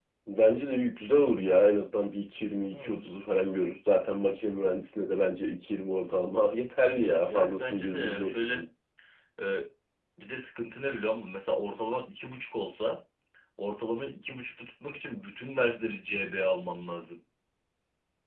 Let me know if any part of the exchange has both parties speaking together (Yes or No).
Yes